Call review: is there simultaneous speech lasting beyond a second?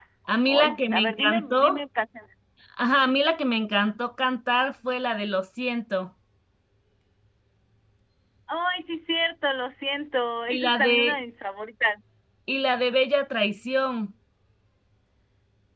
Yes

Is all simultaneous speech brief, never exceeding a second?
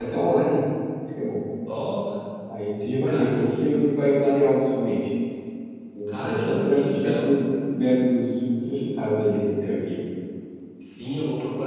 No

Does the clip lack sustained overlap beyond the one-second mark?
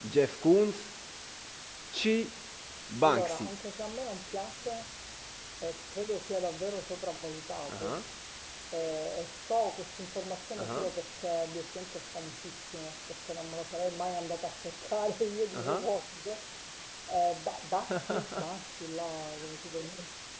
Yes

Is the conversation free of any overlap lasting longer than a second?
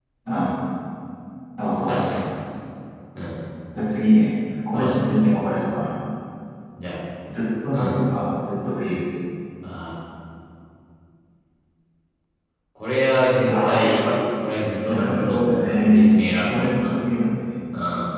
No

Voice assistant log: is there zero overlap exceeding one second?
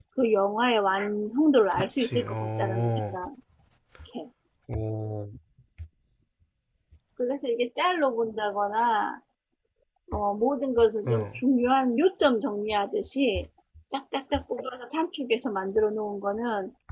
No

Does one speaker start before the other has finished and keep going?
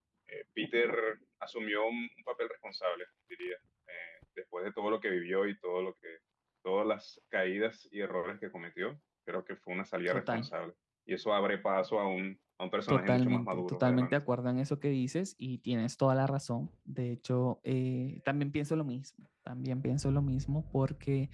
Yes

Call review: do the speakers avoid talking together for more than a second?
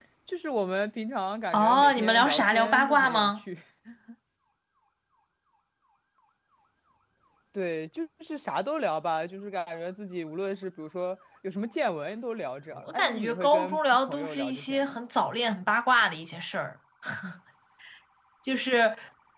No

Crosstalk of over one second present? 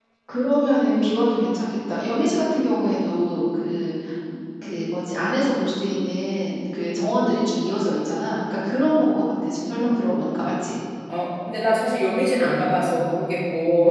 No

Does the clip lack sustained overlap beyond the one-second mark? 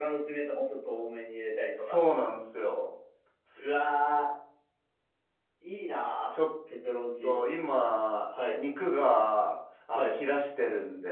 Yes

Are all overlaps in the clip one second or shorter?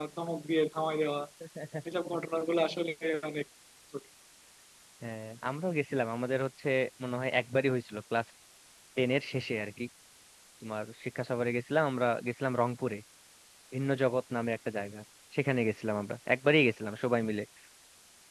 Yes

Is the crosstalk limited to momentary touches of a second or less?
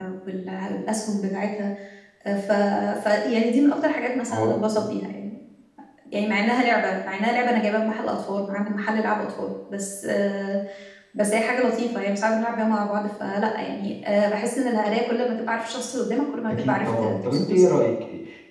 No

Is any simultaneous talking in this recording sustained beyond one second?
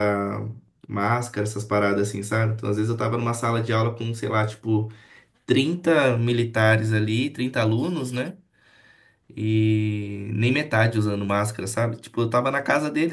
No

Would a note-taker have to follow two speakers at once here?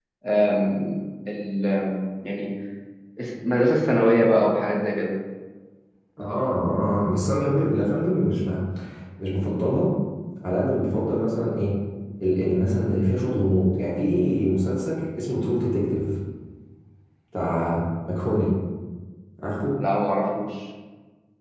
No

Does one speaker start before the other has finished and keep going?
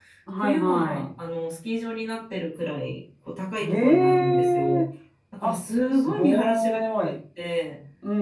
Yes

